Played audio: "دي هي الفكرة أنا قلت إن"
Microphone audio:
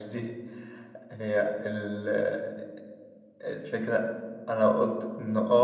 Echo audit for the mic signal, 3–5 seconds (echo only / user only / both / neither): echo only